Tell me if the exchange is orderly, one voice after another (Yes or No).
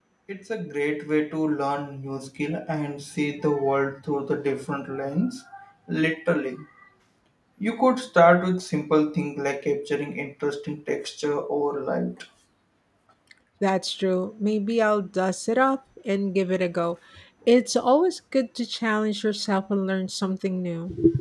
Yes